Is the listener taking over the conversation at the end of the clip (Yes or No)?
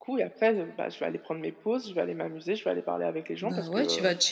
Yes